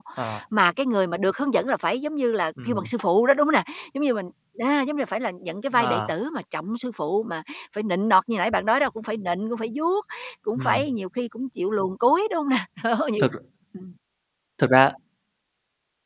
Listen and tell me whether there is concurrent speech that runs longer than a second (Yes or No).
No